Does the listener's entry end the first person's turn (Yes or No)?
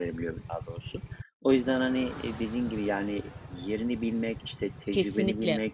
No